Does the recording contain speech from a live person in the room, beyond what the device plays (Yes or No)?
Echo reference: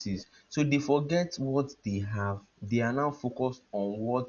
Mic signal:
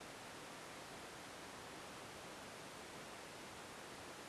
No